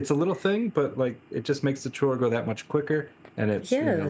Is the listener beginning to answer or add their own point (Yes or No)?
Yes